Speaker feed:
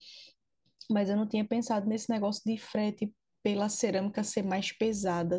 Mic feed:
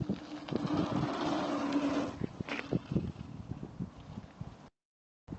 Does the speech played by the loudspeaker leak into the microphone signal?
No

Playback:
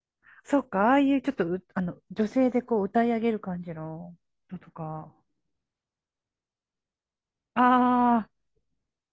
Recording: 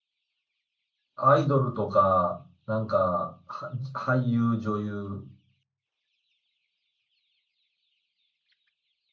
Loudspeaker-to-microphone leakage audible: No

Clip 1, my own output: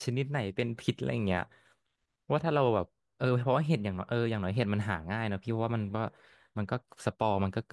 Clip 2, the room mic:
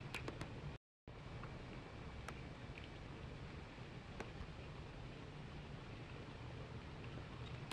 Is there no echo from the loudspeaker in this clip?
Yes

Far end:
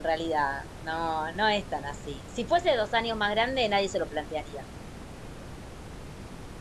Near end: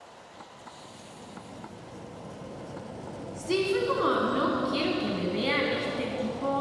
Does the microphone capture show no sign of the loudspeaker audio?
Yes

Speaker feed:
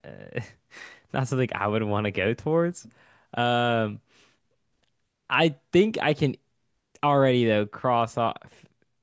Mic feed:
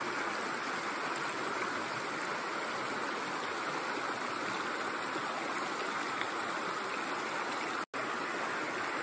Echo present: No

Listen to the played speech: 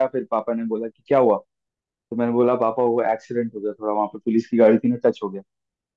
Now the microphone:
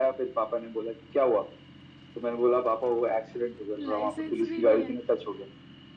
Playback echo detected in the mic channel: Yes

